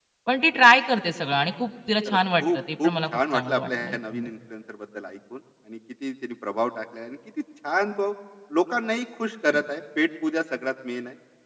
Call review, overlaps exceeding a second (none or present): present